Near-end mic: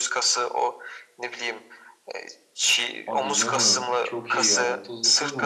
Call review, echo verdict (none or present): present